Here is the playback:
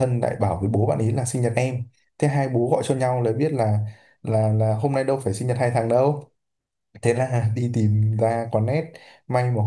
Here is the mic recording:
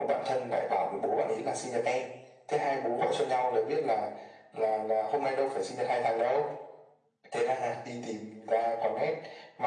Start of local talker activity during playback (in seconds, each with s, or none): none